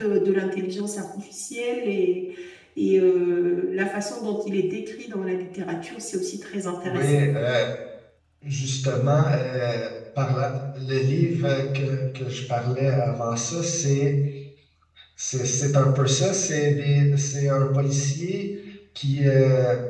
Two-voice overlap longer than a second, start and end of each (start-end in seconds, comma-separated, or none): none